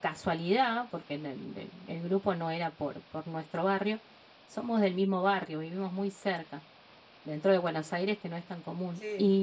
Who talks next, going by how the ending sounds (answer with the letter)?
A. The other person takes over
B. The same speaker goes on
B